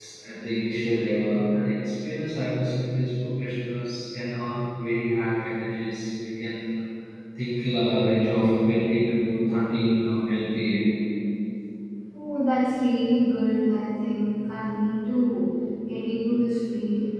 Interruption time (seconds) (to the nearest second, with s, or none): none